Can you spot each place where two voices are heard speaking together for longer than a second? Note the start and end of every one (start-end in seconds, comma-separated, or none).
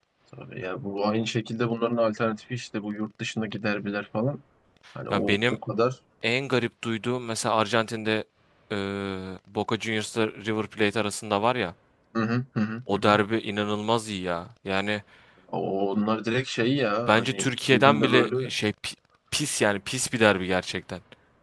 17.1-18.5